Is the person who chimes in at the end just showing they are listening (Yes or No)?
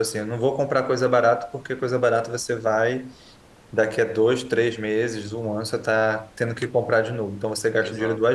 Yes